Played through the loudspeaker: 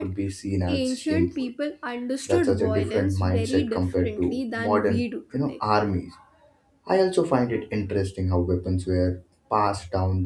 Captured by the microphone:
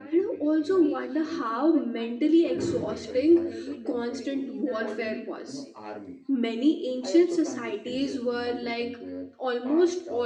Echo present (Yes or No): Yes